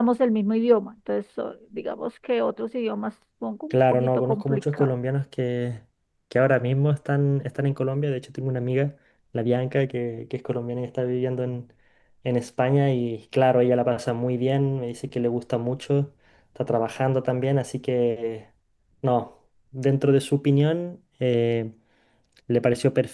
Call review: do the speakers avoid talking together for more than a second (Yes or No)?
No